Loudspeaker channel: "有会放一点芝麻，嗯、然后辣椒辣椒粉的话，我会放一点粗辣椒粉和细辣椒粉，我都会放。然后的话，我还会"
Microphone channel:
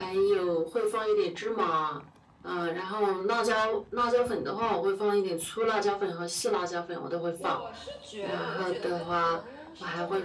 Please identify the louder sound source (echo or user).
echo